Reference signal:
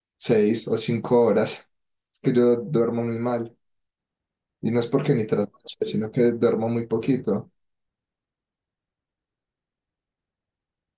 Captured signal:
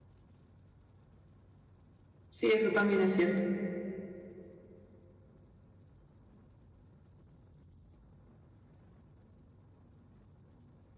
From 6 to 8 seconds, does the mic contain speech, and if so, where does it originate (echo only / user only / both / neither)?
neither